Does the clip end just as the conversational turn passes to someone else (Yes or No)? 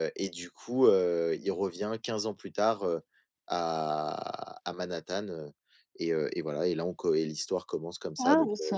No